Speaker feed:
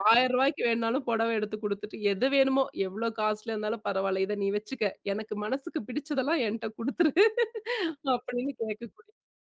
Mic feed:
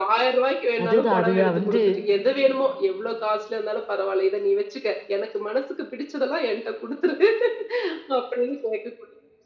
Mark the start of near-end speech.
0.8 s

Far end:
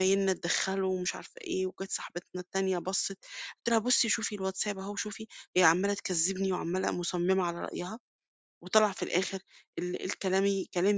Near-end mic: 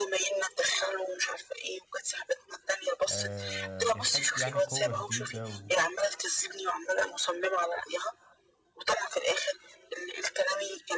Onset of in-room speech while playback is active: 3.1 s

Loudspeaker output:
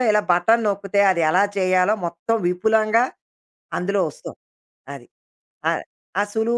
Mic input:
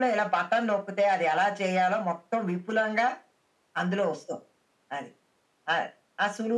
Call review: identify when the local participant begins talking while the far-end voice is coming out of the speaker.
none

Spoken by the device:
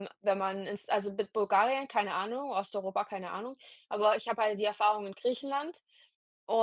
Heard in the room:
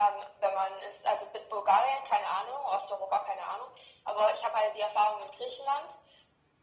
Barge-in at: none

